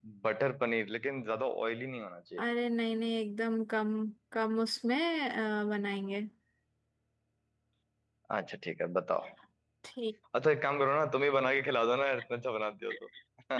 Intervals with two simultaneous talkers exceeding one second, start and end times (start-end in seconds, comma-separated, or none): none